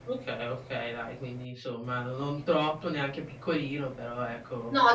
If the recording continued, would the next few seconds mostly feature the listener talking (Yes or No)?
Yes